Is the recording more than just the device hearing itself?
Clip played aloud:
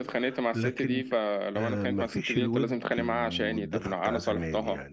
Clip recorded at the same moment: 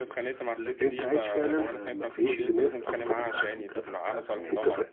Yes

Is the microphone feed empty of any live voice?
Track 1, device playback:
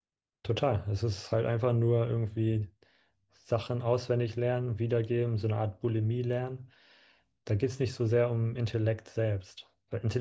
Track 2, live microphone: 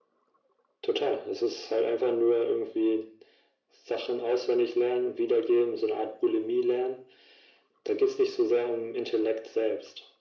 Yes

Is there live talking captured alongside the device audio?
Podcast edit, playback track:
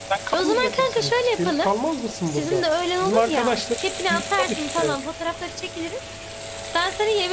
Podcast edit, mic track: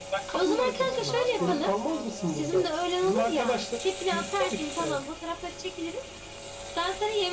Yes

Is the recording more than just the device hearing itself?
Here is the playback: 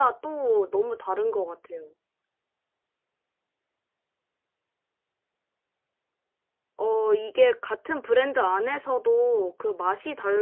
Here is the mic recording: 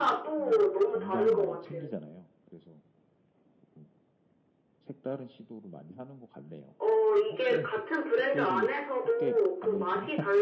Yes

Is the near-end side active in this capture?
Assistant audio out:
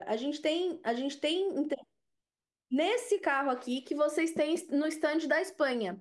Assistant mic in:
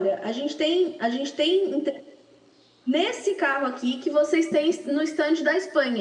No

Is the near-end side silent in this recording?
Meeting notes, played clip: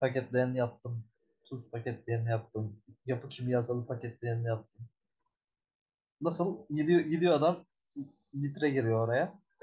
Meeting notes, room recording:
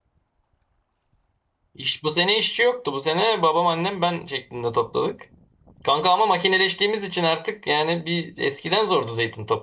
No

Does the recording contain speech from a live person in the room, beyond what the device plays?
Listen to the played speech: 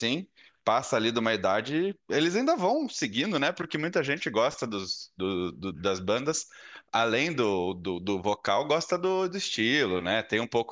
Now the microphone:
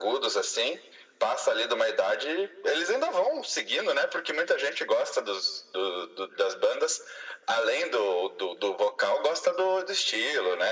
No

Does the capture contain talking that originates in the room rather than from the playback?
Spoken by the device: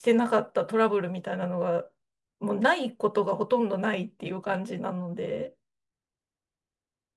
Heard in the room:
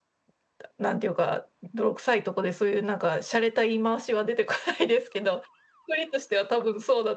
Yes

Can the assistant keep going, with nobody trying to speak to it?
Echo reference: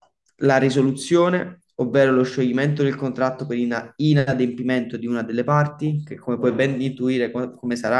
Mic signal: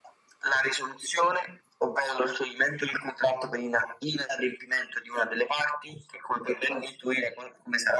Yes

